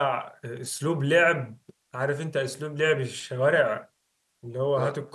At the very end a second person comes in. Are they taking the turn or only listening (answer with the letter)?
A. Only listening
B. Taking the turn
A